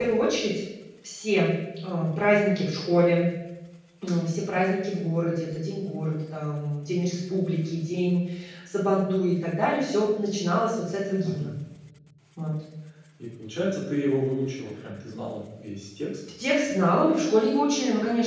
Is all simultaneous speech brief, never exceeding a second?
Yes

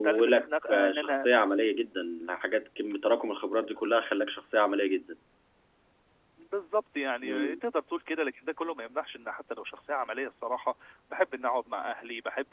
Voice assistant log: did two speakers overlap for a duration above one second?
No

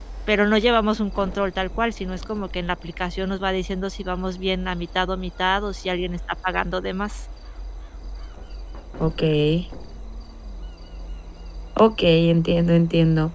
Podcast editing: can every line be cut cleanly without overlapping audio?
Yes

